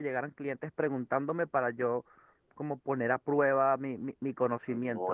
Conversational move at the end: taking over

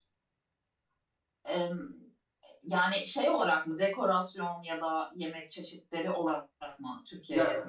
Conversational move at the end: taking over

